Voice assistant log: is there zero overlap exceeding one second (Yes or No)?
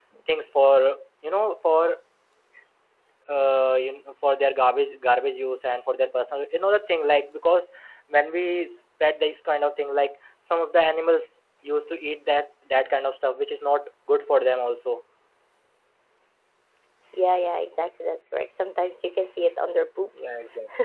Yes